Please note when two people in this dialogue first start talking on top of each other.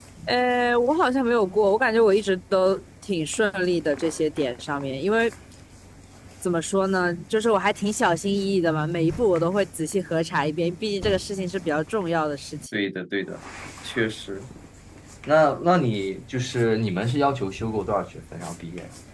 none

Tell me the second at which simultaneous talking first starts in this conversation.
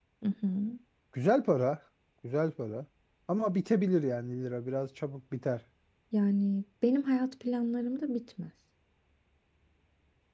none

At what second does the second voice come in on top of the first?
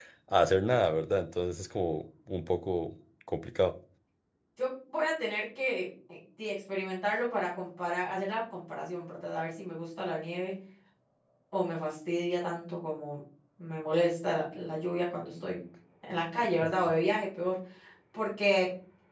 none

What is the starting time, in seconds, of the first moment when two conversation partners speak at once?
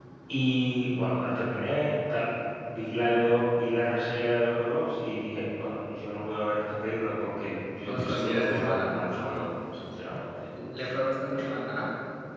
8 s

